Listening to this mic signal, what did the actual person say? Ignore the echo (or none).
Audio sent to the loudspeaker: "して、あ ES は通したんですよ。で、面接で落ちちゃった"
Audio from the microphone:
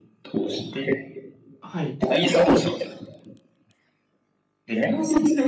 はい。